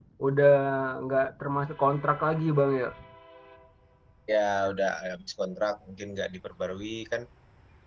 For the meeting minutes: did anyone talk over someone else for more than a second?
No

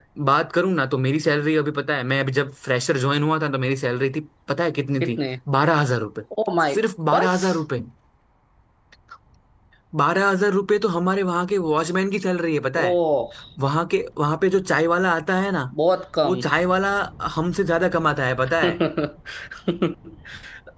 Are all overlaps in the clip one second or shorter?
Yes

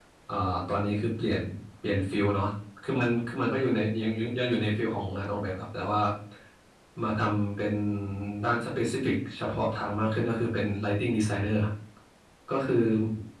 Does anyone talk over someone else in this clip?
No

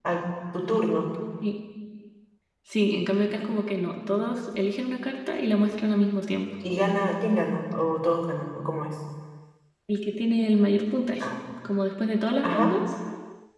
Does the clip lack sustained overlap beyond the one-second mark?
Yes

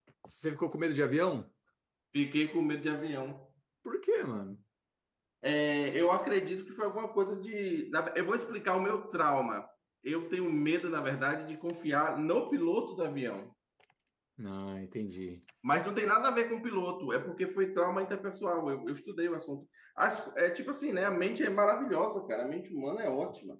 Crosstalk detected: No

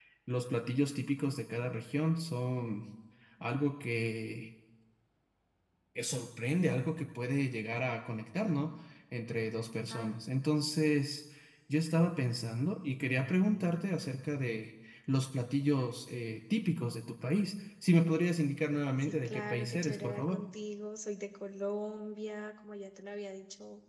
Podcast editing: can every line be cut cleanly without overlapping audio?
No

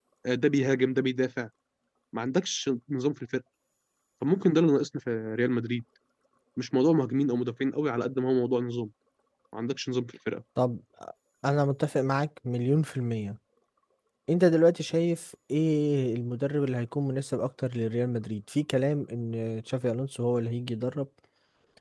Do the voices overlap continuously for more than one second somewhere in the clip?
No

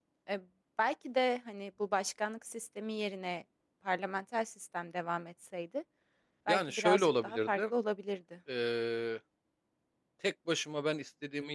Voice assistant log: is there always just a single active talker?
No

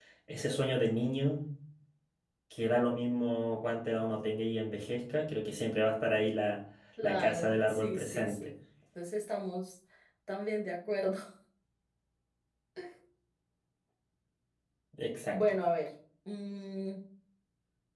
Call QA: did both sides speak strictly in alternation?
No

